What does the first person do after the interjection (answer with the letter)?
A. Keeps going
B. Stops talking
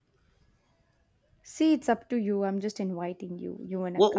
B